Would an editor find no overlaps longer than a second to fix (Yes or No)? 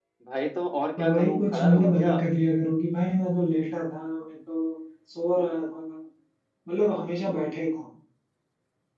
No